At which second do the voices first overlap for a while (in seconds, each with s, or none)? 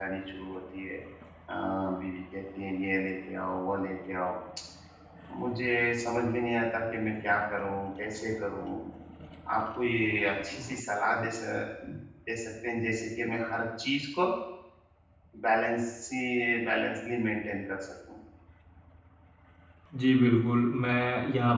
none